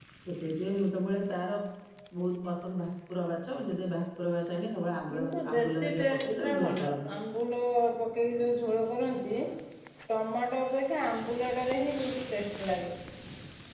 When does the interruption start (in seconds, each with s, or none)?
5.1 s